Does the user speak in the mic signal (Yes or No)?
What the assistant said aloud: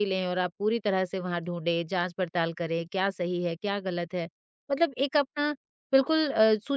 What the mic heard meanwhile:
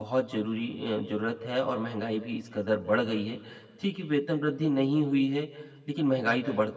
Yes